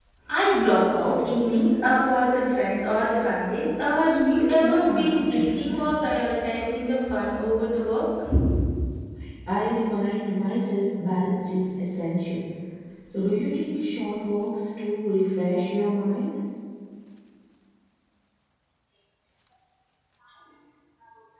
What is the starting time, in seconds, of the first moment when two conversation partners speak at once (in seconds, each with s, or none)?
4.6 s